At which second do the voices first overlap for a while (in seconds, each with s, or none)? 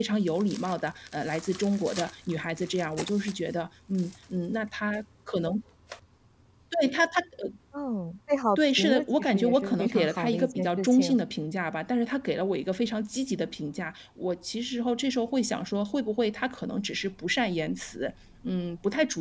8.6 s